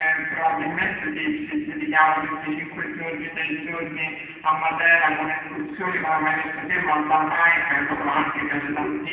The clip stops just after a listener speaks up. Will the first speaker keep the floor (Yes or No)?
Yes